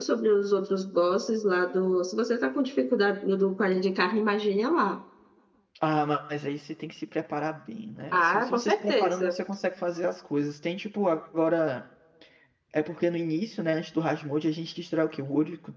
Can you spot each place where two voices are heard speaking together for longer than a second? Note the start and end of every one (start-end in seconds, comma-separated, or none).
8.1-9.3